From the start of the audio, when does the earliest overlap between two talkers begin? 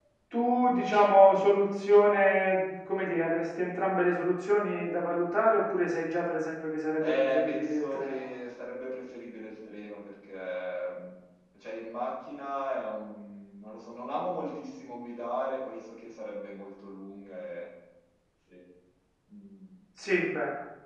7.0 s

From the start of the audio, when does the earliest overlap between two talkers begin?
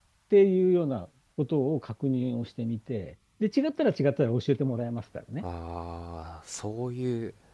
none

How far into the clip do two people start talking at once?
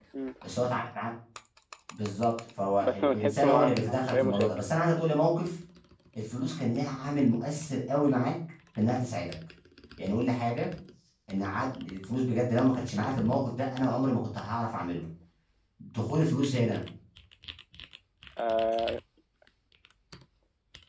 2.8 s

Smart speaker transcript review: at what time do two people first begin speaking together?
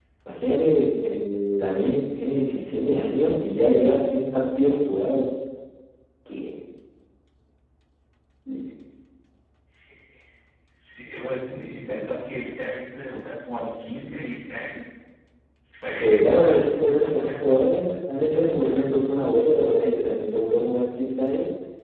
16.0 s

